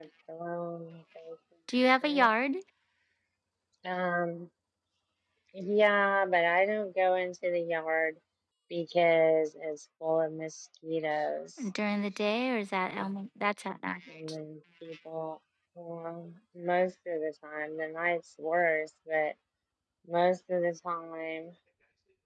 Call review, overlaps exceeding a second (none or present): none